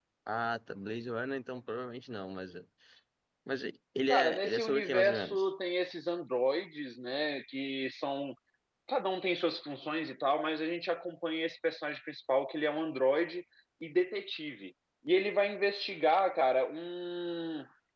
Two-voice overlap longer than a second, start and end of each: 4.1-5.5

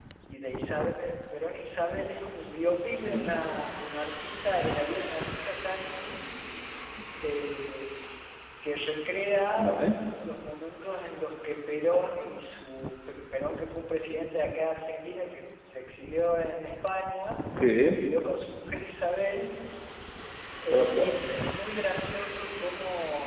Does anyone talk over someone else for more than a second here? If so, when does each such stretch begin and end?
none

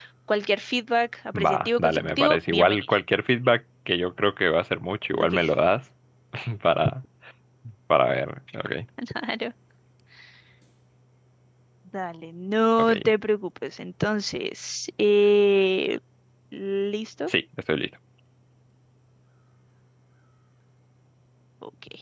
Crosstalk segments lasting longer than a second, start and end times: 1.3-3.0

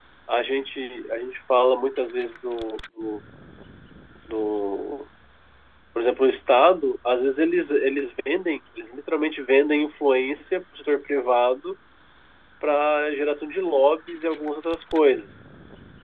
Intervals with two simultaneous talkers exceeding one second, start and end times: none

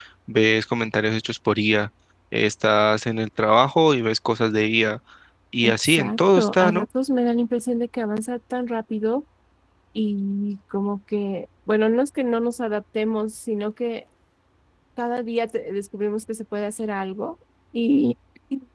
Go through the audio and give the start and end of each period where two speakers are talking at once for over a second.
5.6-6.8

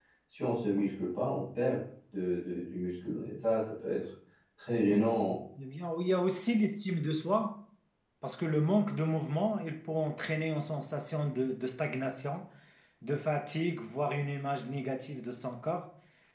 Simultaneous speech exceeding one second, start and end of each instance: none

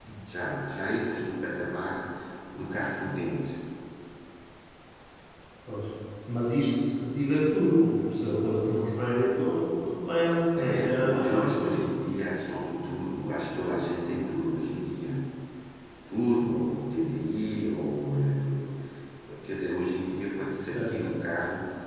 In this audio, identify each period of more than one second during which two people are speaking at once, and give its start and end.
10.6-11.9

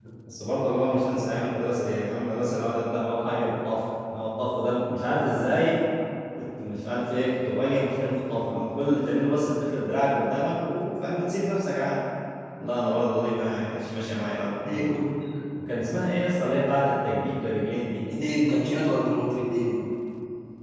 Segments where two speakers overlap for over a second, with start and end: none

